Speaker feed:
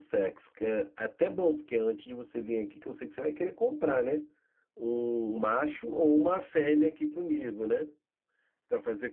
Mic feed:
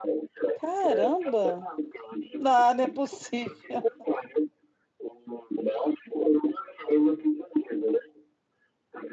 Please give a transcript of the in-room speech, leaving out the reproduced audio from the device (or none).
Caramba! Não, não é possível.